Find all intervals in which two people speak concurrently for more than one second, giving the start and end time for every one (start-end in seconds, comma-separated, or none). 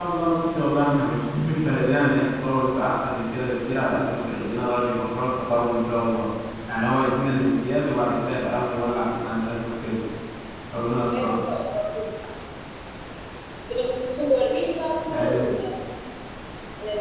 none